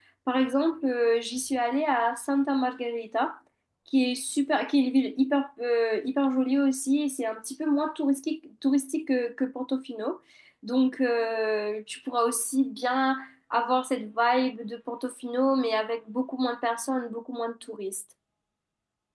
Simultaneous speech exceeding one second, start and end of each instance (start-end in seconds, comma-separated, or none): none